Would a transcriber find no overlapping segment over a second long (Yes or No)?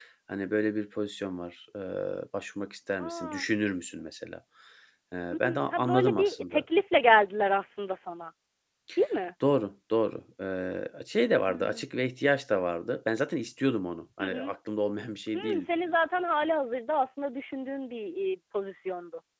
No